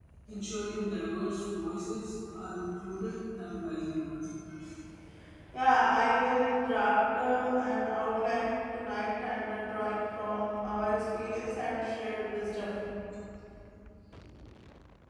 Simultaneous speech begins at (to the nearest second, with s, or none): none